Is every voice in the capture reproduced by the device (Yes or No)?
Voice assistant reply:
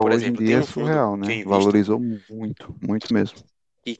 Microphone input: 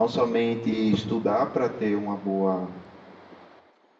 No